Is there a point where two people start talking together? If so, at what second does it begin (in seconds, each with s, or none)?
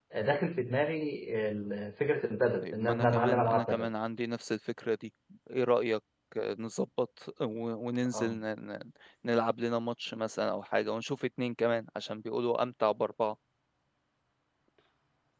2.6 s